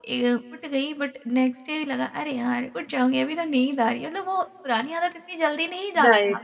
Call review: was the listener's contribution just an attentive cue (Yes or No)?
No